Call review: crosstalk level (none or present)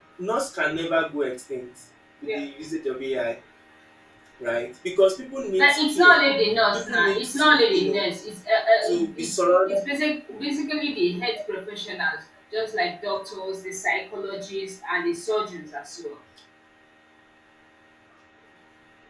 present